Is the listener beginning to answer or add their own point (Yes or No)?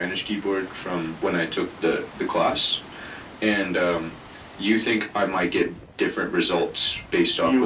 Yes